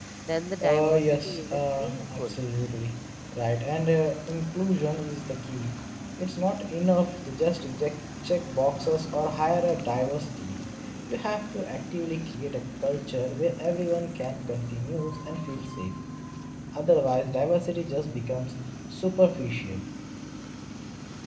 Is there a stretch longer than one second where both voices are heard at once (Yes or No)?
Yes